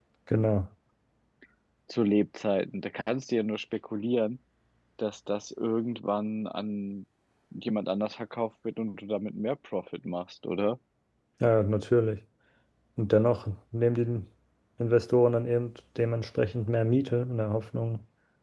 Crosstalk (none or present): none